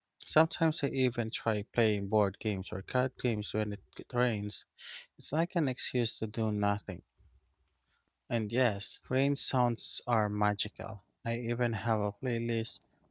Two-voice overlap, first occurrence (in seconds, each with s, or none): none